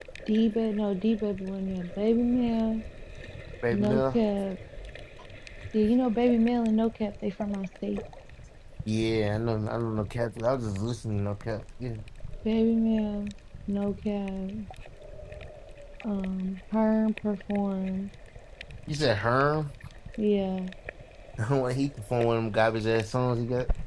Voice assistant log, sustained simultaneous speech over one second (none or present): none